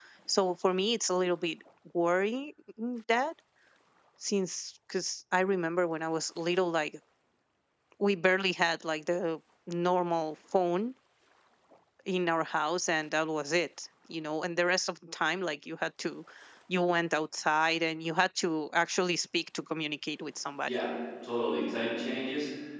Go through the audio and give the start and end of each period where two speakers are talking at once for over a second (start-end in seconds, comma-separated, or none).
none